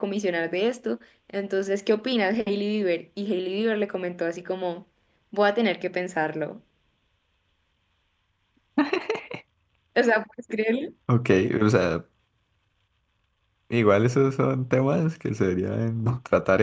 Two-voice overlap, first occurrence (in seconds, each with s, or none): none